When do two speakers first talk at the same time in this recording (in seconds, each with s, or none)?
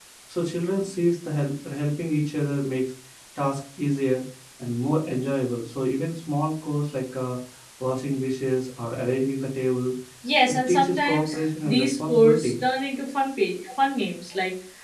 10.5 s